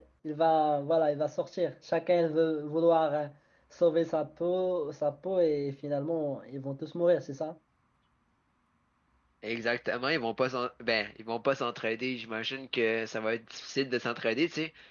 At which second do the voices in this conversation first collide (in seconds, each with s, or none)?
none